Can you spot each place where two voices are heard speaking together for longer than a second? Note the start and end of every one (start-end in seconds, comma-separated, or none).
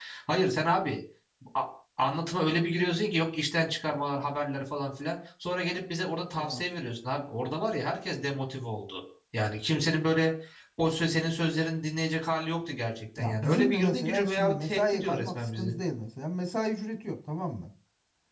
13.2-15.8